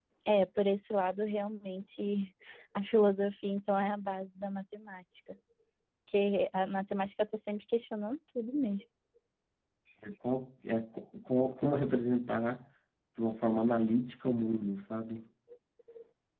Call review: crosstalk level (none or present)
none